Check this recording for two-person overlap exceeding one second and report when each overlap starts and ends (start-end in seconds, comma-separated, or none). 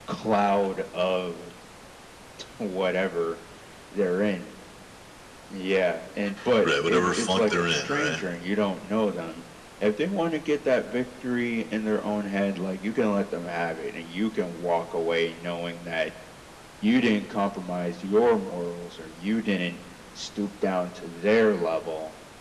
6.6-8.2